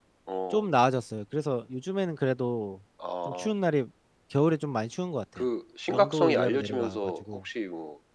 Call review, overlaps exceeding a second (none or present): present